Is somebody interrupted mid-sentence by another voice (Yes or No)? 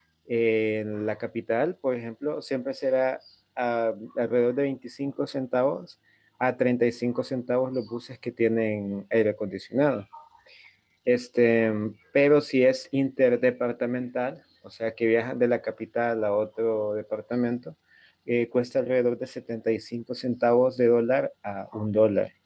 No